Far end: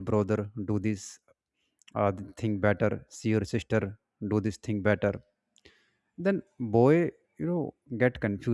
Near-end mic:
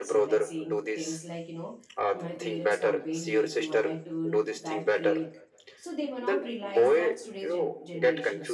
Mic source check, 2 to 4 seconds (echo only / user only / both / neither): both